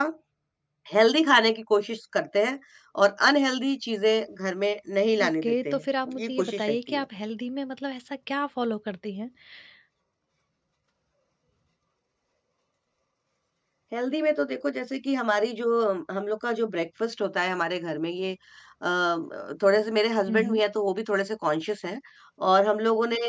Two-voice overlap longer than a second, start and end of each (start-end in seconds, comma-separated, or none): 5.2-7.0